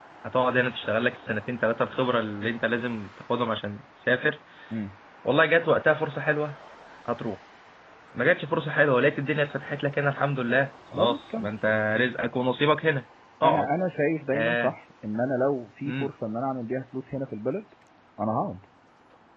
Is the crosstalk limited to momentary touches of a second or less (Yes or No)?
Yes